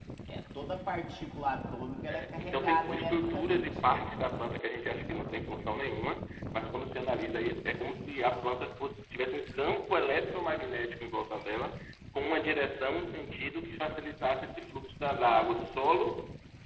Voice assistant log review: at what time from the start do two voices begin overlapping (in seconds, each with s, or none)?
2.4 s